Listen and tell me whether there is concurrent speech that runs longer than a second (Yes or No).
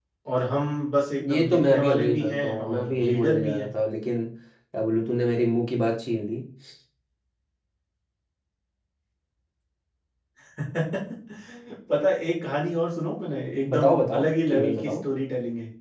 Yes